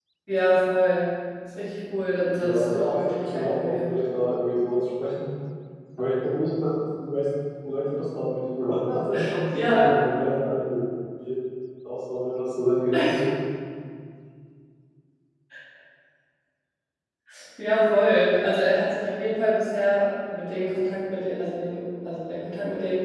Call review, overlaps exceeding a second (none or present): present